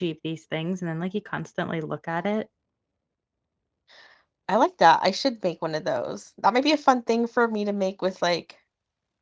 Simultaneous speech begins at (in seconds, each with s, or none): none